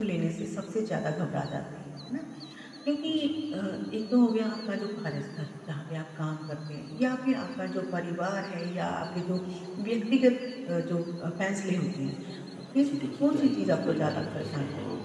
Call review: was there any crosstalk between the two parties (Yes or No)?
Yes